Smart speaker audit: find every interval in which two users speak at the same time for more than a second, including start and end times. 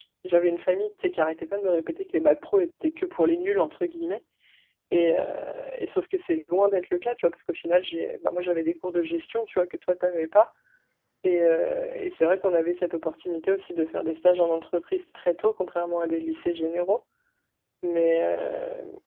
none

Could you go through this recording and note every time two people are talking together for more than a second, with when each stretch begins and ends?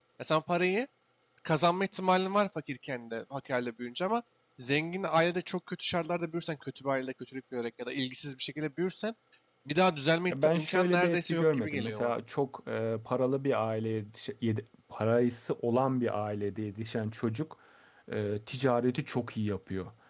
10.3-12.1

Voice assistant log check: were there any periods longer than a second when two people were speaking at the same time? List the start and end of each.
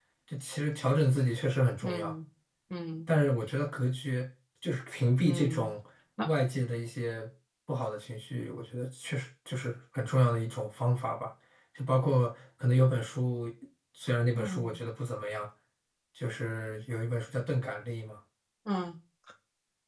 none

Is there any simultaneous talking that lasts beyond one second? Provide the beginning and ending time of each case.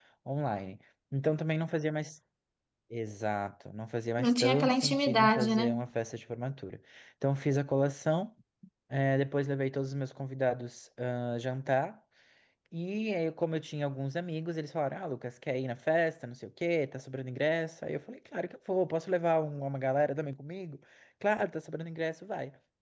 4.2-5.8

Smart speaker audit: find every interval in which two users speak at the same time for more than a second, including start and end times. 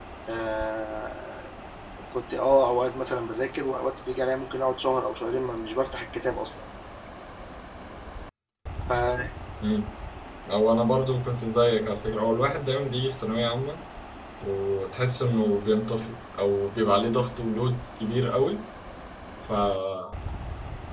none

